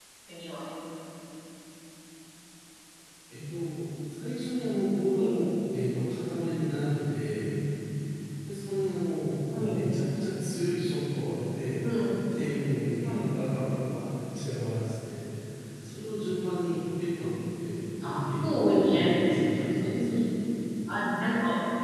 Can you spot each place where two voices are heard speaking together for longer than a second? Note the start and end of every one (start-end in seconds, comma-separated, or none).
18.0-20.1